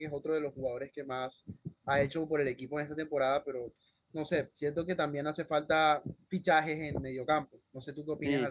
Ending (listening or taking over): taking over